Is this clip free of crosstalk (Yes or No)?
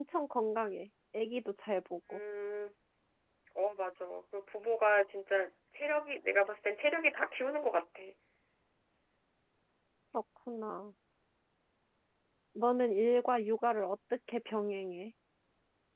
Yes